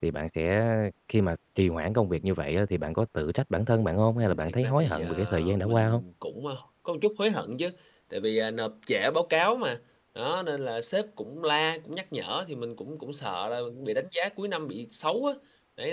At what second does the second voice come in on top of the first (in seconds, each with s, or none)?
4.2 s